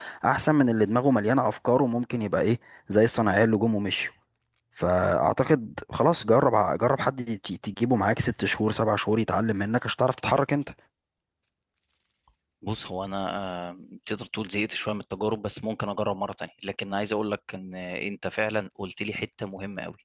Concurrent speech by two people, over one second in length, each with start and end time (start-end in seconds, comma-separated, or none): none